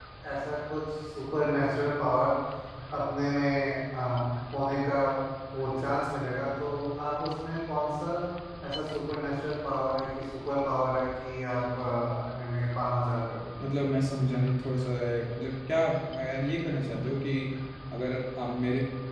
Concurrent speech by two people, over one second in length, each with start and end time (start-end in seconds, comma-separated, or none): none